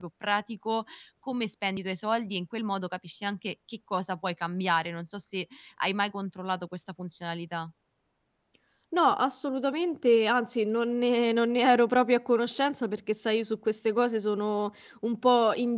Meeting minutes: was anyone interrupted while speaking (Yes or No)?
No